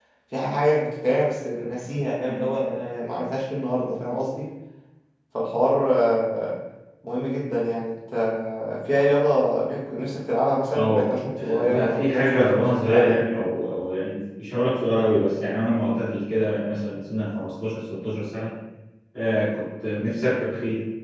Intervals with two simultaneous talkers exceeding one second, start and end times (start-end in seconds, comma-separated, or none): 11.4-13.2